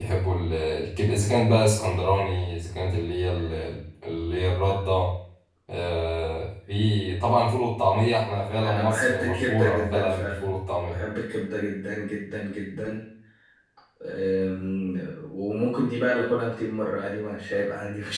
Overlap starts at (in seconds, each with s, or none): 8.6 s